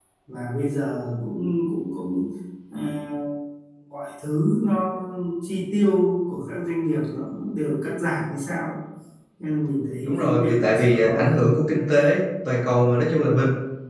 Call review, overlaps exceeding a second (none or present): present